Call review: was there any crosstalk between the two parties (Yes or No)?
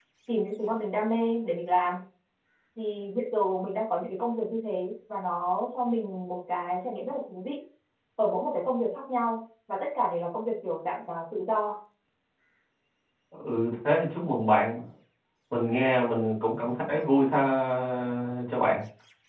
No